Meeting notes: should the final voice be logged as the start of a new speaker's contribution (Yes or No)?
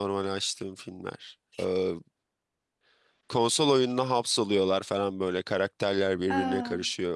No